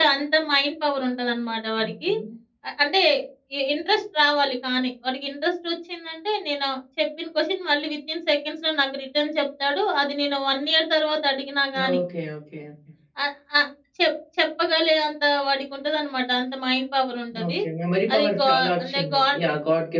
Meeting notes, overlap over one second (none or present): present